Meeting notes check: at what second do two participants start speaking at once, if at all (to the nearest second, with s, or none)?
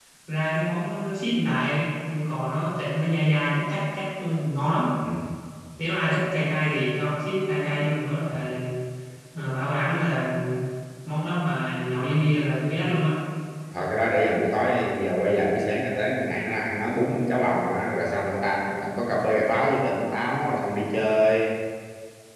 none